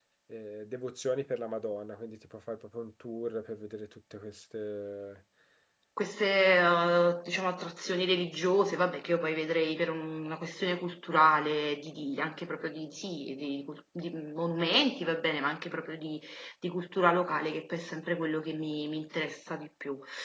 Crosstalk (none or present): none